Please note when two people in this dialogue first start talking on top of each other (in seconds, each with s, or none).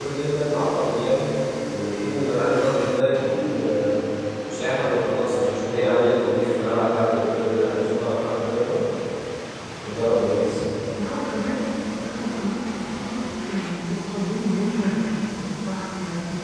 none